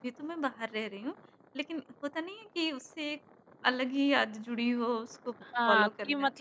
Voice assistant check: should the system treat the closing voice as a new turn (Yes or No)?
Yes